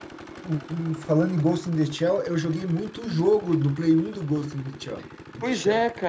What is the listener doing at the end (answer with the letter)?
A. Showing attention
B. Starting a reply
B